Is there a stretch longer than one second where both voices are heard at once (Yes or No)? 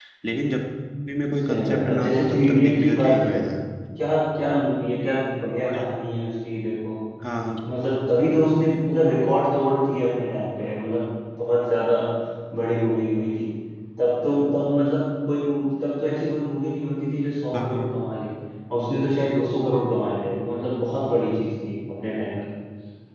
Yes